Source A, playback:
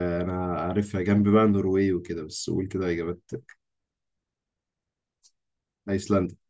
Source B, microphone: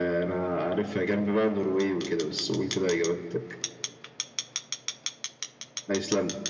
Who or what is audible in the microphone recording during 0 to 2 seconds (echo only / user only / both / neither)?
echo only